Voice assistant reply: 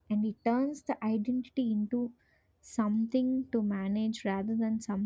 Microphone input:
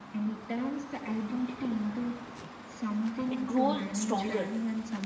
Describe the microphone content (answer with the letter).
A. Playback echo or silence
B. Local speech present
B